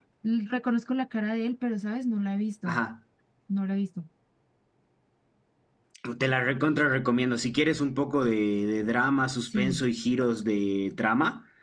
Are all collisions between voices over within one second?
Yes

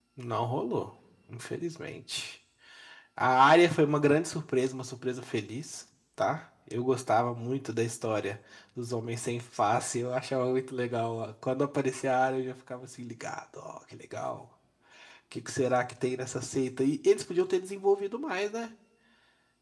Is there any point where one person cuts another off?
No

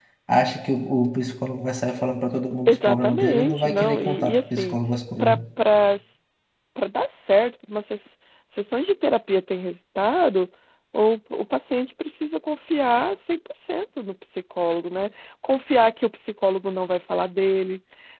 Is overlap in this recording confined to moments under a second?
No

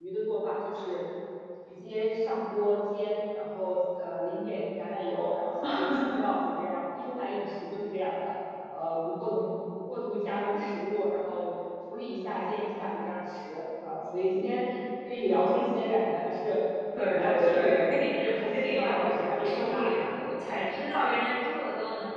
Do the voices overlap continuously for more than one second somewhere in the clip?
Yes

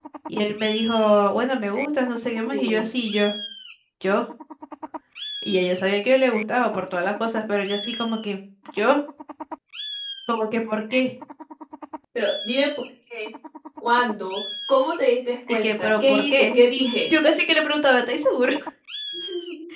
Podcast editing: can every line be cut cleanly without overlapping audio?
No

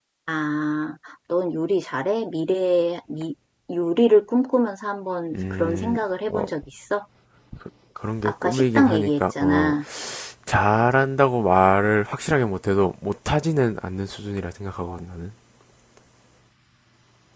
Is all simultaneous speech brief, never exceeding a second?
No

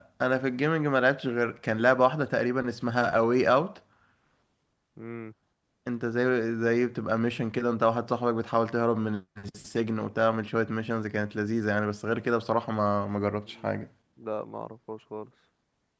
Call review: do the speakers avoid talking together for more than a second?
Yes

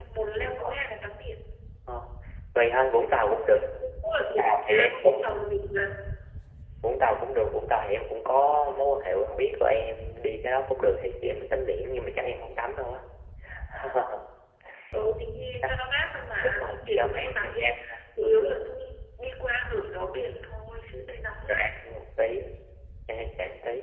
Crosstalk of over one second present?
Yes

